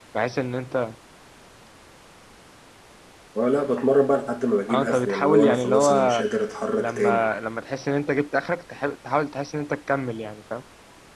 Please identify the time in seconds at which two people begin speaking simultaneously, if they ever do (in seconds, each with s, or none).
4.7 s